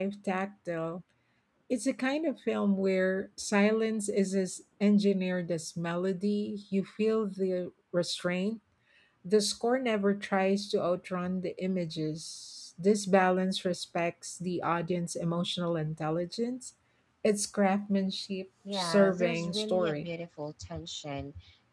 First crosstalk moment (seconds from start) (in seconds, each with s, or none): 18.6 s